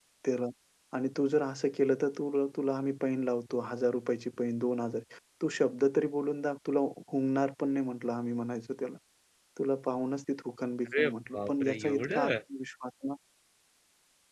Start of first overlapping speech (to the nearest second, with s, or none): 11 s